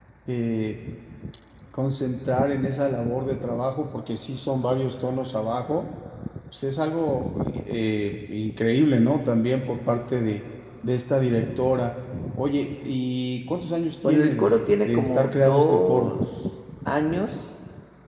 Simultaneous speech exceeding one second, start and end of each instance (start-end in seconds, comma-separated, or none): 14.1-16.1